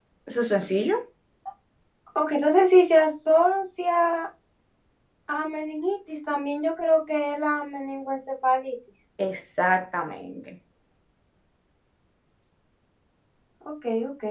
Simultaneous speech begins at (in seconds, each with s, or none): none